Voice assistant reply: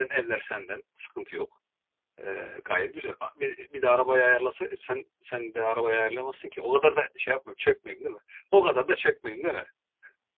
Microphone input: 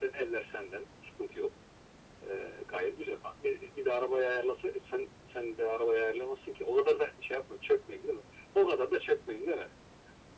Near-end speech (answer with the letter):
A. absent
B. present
A